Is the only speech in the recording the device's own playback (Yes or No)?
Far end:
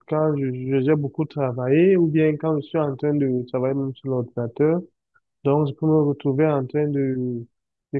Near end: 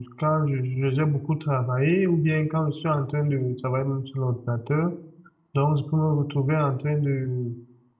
Yes